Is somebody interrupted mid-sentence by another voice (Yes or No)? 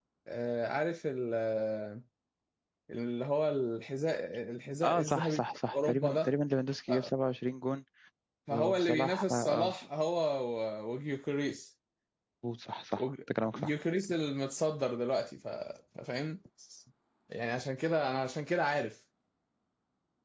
Yes